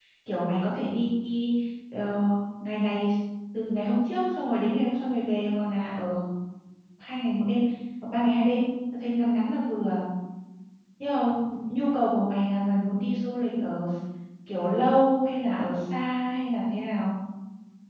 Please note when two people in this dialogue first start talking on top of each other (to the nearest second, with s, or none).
none